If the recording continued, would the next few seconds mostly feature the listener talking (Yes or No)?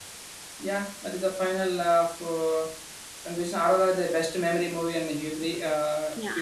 No